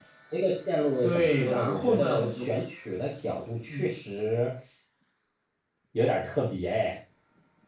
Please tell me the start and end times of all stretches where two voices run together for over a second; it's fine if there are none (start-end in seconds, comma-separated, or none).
1.0-2.5